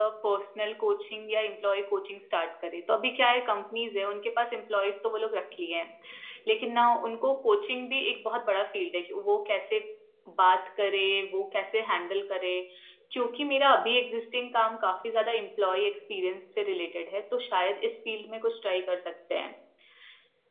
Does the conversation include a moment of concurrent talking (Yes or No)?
No